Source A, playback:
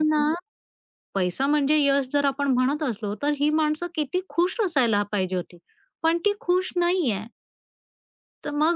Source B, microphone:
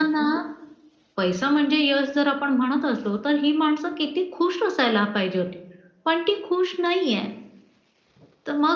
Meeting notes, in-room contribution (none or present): none